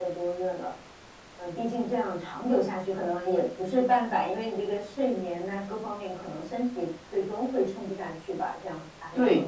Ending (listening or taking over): taking over